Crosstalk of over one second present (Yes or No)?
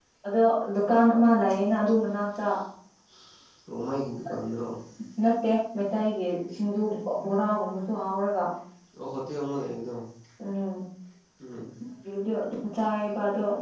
No